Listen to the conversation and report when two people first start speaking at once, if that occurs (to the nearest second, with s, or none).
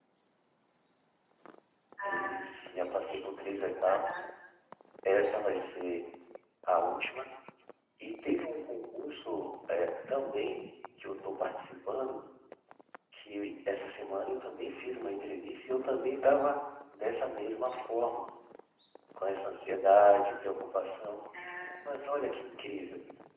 2 s